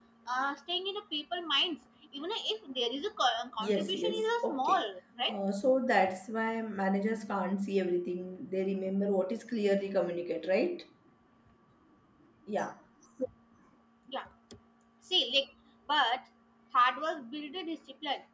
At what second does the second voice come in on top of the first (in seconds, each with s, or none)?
3.6 s